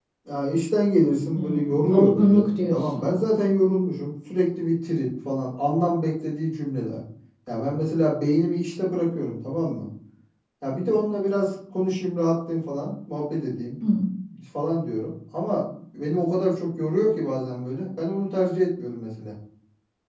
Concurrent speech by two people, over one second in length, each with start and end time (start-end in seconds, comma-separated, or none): 1.4-3.1